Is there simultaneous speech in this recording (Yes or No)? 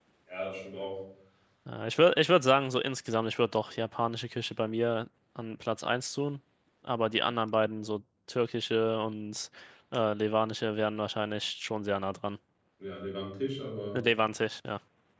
No